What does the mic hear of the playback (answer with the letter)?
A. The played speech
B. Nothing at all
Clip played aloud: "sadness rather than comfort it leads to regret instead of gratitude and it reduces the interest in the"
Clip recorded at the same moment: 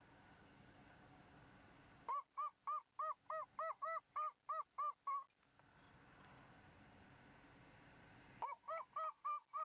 B